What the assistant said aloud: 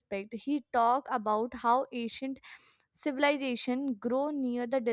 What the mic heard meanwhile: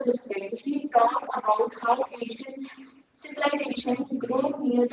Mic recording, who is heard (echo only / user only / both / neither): both